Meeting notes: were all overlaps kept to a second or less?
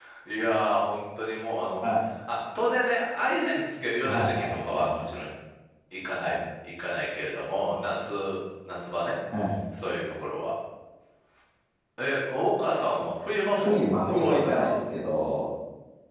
No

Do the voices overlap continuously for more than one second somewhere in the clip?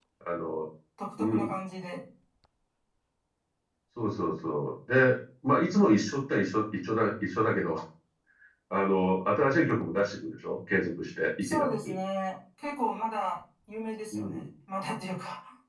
No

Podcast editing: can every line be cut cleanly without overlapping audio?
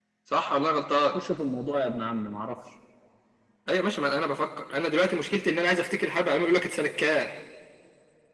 Yes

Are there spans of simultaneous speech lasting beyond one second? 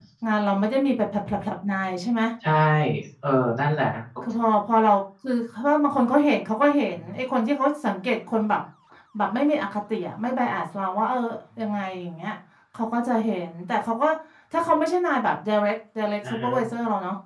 No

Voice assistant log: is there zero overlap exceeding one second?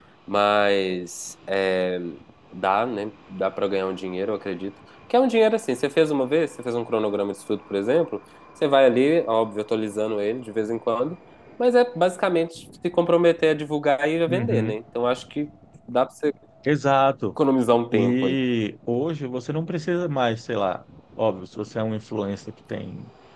Yes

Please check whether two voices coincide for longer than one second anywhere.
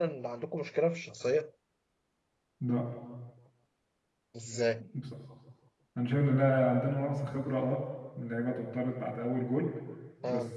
No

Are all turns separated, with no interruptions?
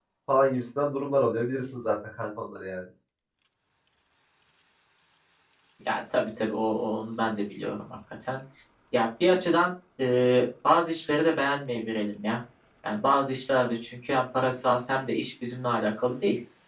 Yes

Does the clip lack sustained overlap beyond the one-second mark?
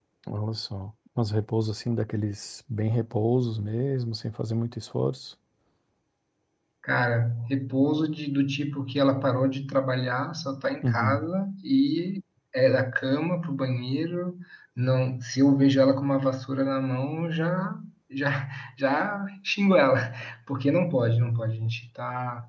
Yes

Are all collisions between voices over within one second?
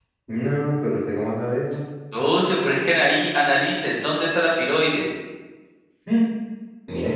Yes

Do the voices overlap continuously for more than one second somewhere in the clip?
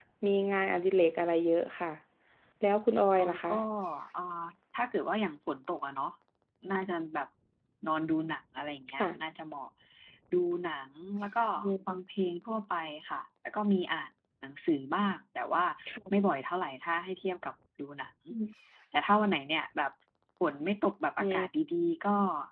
No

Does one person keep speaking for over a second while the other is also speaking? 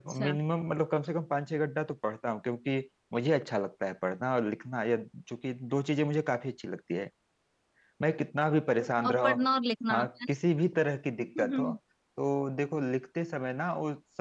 No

